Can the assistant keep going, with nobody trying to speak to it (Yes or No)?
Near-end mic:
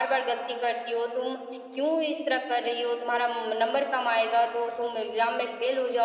Yes